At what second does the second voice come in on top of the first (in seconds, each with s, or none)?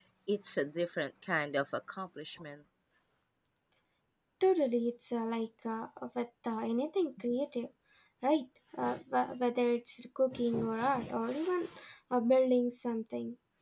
none